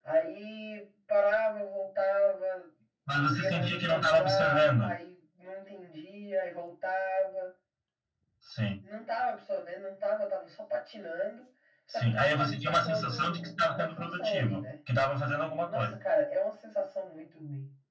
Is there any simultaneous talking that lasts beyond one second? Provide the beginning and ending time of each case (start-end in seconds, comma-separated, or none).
3.2-4.9, 11.9-14.6